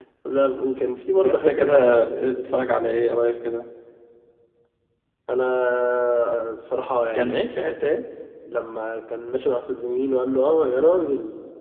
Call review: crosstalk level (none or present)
present